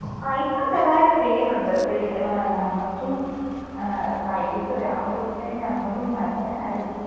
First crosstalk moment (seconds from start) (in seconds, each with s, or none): none